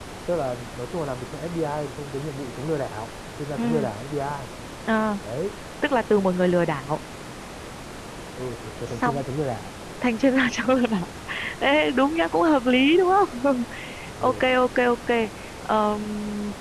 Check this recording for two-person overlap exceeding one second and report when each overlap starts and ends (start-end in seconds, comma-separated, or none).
none